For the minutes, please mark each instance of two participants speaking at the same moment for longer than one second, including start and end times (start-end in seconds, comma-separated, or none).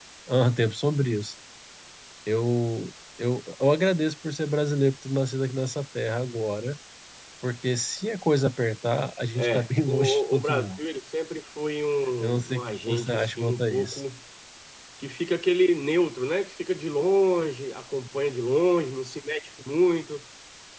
9.4-10.7, 12.2-14.0